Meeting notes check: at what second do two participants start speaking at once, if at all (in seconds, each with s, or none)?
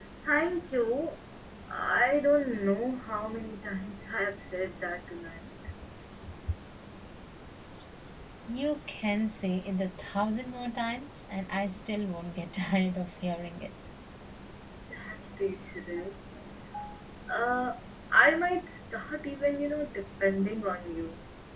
none